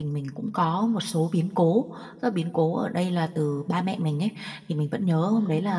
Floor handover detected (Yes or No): No